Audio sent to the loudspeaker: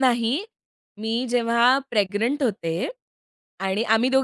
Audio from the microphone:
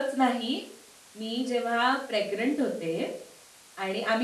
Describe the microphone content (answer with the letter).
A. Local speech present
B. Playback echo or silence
B